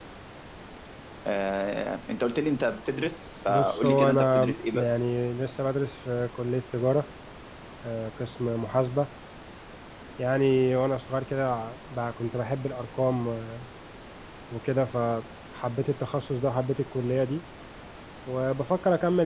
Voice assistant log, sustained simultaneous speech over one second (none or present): present